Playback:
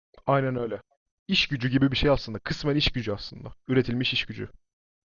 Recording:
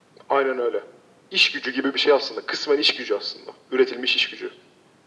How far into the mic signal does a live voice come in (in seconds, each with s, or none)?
none